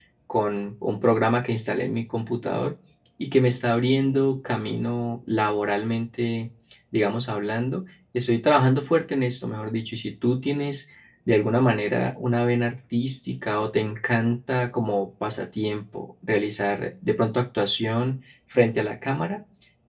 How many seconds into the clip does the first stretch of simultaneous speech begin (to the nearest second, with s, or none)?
none